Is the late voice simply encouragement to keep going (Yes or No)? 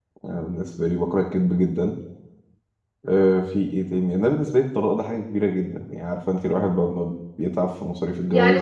No